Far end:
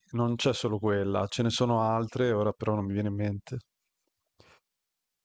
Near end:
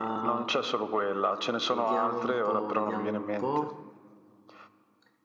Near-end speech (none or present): present